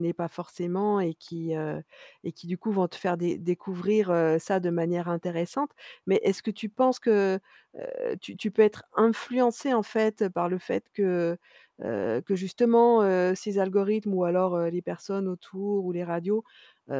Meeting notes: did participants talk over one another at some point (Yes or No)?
No